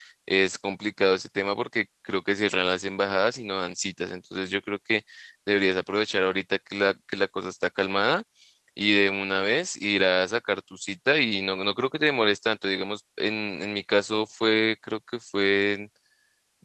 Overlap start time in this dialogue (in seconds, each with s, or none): none